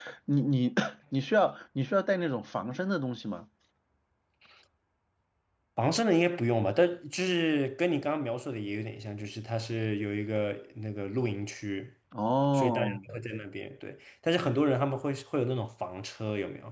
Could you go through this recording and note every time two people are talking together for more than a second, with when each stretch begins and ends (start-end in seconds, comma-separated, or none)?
none